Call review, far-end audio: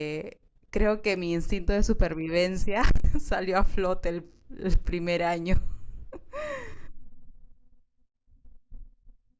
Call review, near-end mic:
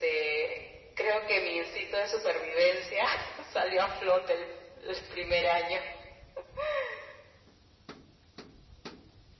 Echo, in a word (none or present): present